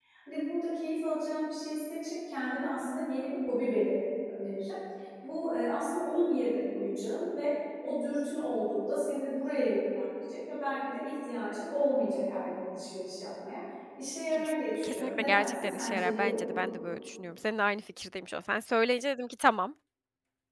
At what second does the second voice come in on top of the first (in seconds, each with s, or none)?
14.3 s